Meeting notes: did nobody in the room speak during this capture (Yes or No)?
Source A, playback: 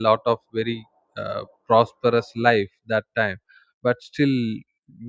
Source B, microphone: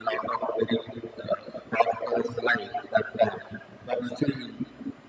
Yes